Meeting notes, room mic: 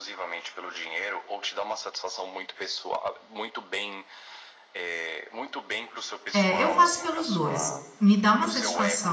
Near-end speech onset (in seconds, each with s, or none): 6.3 s